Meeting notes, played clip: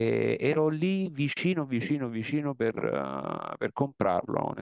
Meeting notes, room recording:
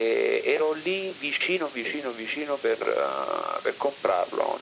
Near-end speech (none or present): none